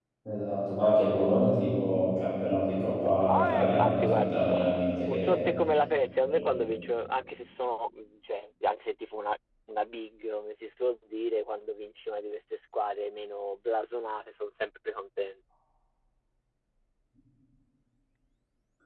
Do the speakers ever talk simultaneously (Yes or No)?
Yes